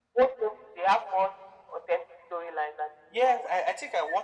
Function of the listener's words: taking over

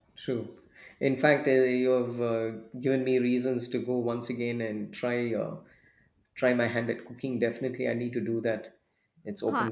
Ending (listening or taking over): taking over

